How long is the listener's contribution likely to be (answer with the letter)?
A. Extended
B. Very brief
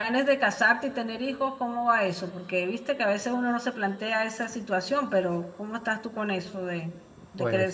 A